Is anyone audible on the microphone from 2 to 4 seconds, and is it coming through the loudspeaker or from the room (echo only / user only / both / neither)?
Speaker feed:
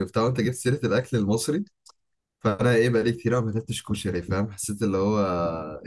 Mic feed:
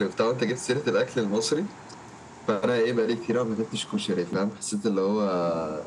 echo only